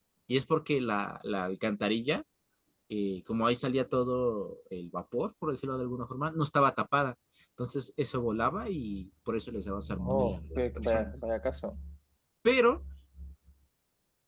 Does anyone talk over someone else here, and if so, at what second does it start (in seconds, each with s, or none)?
10.0 s